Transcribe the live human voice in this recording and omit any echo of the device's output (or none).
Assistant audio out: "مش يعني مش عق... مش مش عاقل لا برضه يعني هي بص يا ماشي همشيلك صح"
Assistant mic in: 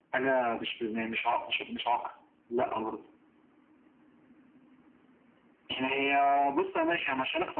none